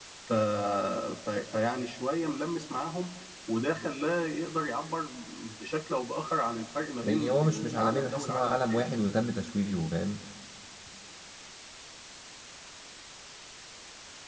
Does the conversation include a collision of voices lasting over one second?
Yes, from 7.0 s

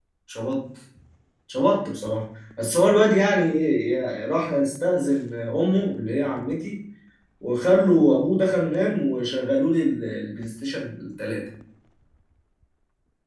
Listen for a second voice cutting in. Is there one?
No

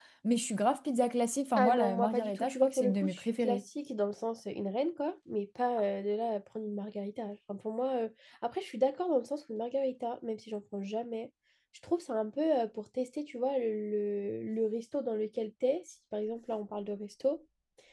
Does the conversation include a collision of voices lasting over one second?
Yes, from 1.6 s

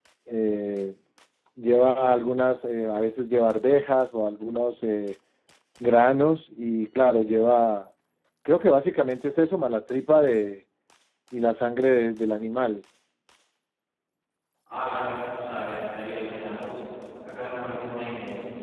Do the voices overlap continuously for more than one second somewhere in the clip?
No

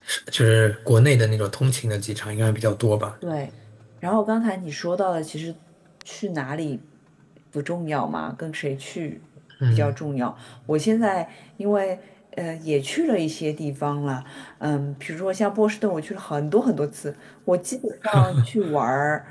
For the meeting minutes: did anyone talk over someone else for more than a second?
No

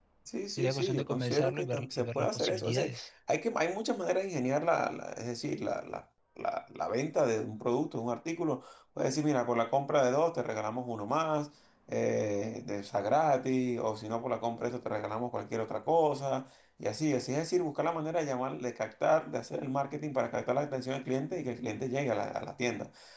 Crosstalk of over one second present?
Yes, from 0.6 s

